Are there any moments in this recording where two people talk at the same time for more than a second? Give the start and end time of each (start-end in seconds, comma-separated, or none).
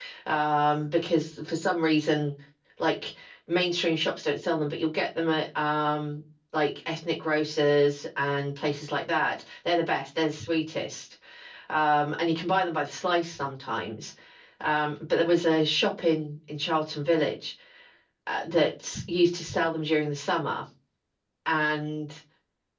none